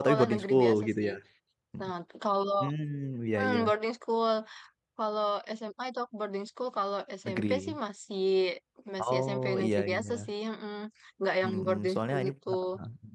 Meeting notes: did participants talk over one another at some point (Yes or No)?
Yes